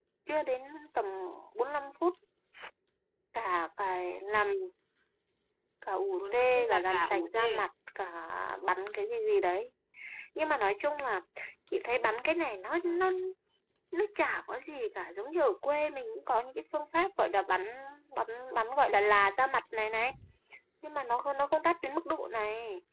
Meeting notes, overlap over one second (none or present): present